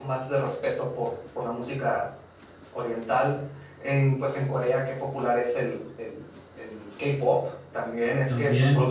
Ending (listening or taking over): taking over